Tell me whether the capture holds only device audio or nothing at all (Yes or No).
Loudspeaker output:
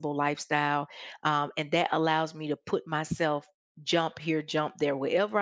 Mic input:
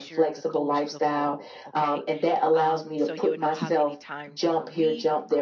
No